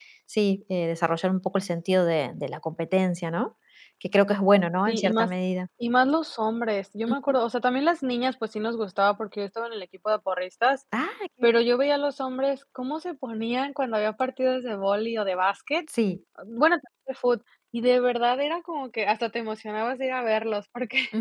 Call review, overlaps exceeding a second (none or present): none